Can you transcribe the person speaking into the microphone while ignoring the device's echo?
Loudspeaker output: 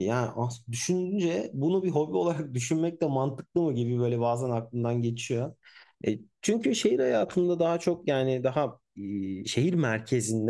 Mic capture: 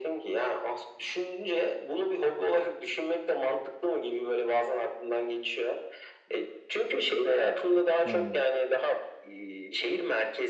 Yani

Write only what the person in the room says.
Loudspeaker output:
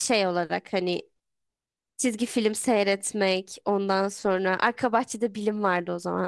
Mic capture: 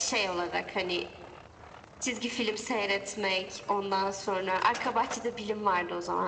none

